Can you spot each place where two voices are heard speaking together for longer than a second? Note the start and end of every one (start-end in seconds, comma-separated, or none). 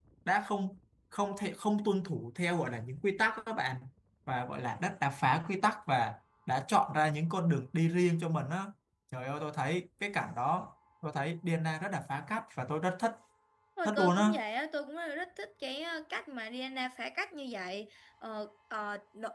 none